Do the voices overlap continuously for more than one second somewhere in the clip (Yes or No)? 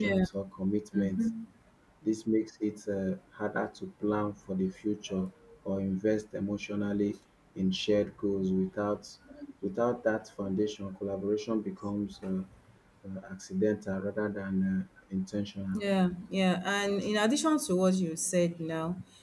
No